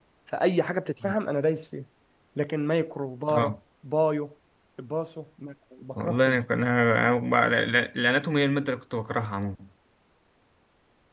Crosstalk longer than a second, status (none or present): none